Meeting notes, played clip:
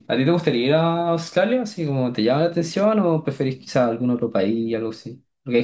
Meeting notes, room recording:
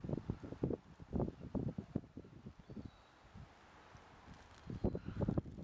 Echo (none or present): none